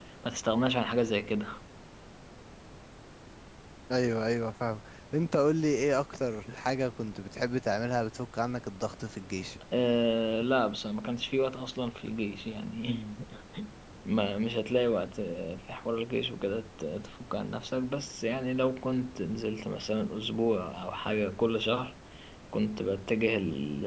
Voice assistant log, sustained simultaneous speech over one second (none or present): none